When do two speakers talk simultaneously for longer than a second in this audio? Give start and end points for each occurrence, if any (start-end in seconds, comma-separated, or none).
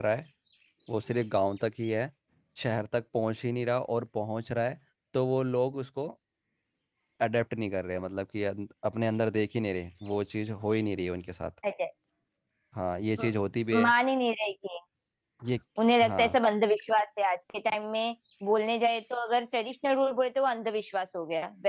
none